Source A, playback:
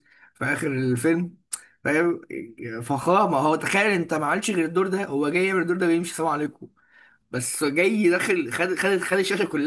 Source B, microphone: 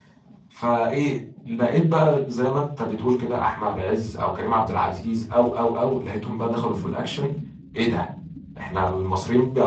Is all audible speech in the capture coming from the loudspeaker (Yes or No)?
No